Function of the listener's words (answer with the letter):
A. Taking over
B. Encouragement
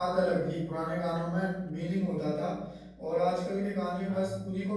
B